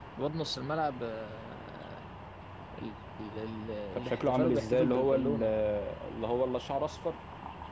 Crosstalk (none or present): present